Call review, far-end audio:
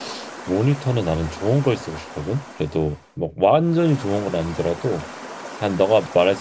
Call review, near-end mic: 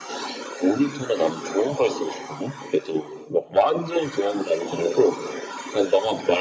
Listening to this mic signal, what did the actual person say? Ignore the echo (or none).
none